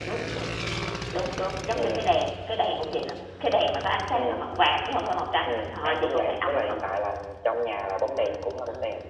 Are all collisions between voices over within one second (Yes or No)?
No